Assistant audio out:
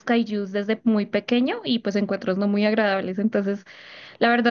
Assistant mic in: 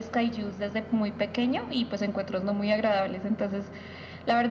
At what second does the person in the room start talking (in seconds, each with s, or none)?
none